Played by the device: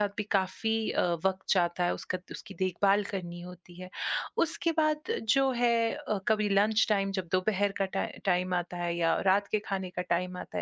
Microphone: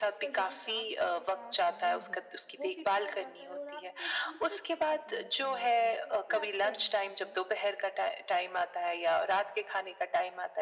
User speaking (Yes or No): Yes